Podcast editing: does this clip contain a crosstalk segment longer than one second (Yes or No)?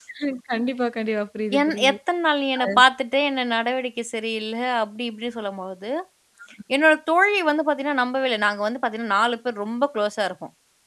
No